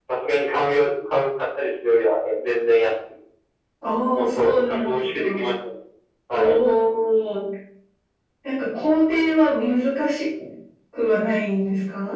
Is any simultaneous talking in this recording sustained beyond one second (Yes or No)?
Yes